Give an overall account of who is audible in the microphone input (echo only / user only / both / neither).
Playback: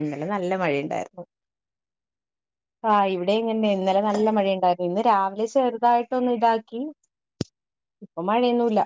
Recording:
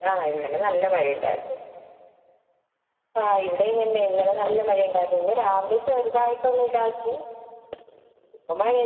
echo only